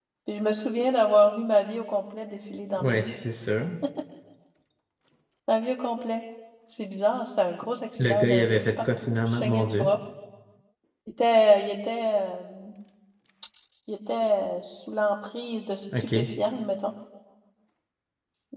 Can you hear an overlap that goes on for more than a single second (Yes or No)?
Yes